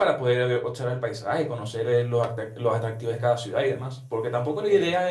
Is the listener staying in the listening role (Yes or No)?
Yes